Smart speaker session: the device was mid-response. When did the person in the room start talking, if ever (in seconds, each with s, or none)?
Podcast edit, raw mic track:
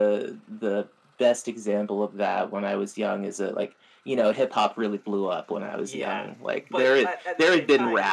5.8 s